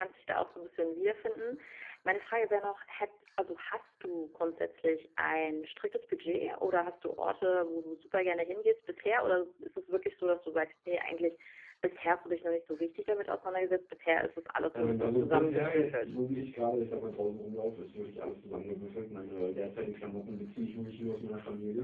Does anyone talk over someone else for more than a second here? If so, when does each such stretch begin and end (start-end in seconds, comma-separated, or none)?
14.7-16.2